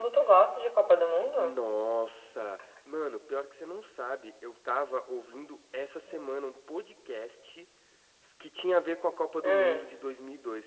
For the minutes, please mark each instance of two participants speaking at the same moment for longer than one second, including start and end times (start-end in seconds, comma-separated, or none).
none